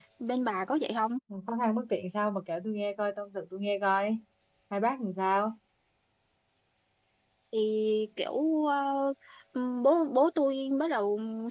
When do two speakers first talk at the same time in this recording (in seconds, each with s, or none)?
none